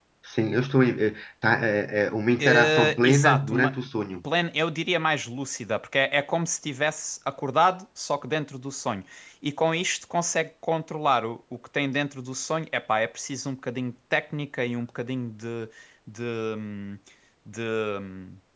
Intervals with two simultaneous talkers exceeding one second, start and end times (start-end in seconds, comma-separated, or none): 2.4-3.7